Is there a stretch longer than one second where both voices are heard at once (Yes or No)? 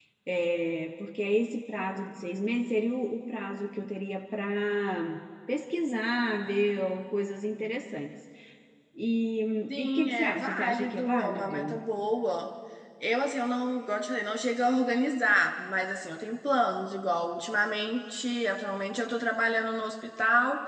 Yes